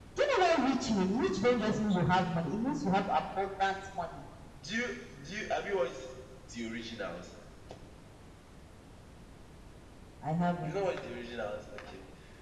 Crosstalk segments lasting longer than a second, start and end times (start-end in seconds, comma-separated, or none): none